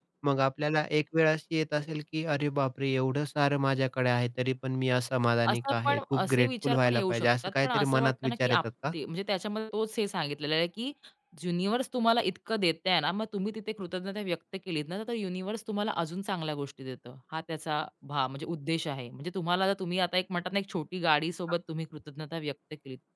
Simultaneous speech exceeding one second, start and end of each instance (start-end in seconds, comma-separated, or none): 5.5-8.9